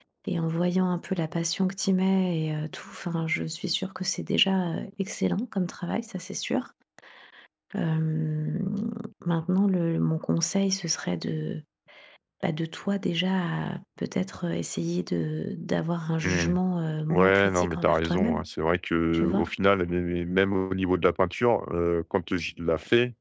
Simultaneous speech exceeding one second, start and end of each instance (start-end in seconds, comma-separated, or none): 17.1-18.4